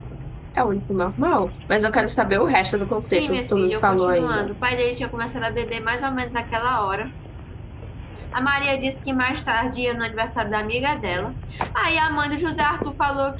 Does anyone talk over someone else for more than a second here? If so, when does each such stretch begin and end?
3.0-4.4

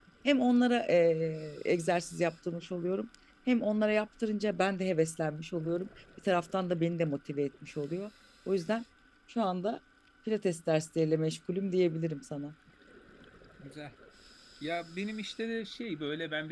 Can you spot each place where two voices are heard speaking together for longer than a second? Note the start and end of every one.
none

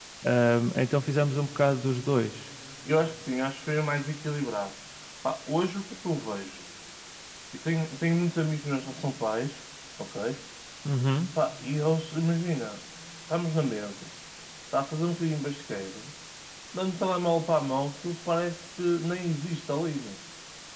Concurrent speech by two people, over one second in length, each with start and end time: none

